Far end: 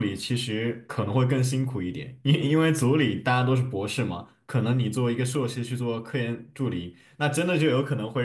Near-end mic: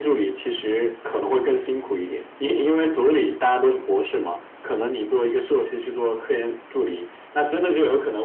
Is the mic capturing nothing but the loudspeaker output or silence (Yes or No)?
Yes